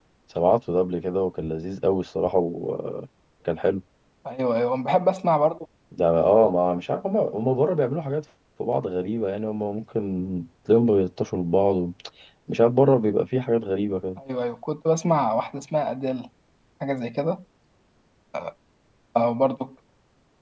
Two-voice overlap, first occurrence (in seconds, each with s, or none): none